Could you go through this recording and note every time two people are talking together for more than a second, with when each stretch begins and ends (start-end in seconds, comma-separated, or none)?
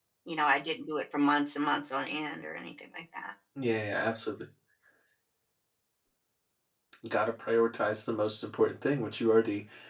none